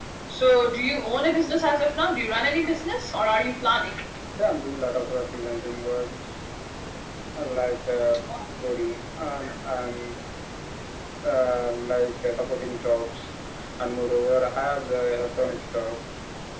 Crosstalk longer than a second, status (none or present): none